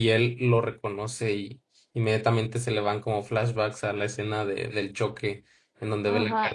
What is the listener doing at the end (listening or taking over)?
taking over